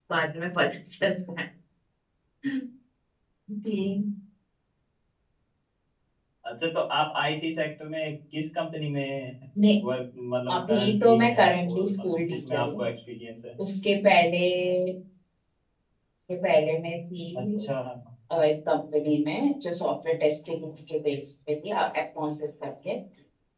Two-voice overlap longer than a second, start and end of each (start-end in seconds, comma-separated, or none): 10.5-12.8